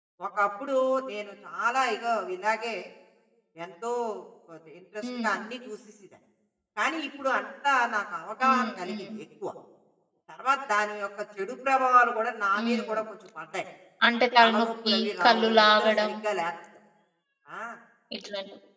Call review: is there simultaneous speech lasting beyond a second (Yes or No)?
Yes